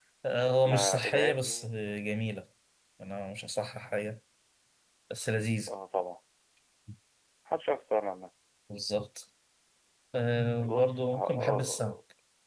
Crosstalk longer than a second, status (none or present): present